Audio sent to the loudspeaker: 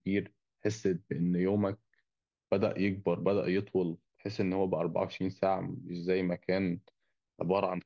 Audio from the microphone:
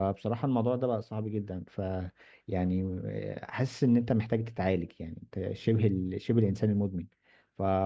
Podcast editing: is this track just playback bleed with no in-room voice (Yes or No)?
No